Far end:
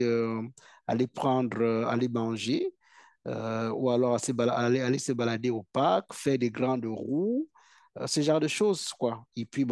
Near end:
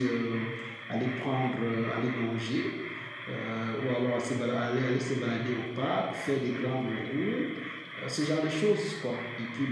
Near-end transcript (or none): none